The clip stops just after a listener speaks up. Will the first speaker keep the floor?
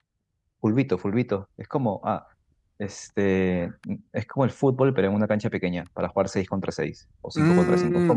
No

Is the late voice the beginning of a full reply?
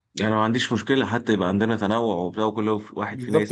Yes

